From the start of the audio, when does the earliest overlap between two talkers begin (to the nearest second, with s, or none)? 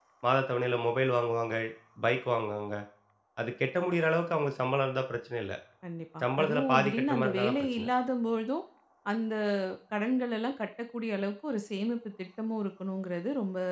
6 s